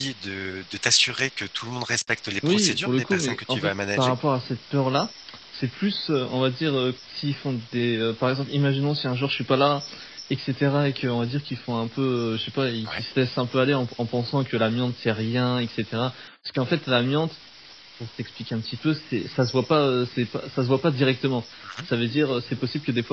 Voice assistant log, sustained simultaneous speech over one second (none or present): present